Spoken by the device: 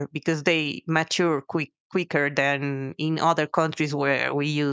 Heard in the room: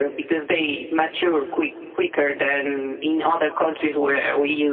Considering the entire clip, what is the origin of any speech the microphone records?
echo only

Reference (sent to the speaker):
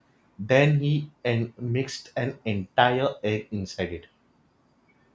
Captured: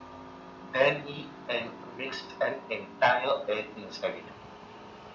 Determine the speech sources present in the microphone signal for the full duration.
echo only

